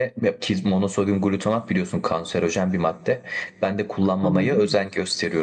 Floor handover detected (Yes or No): No